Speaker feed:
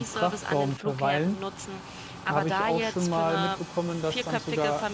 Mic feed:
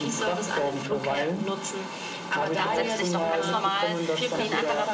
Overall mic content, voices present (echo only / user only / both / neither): both